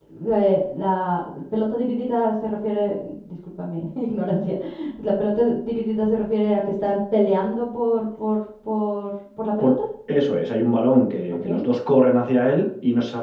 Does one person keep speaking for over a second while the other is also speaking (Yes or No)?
No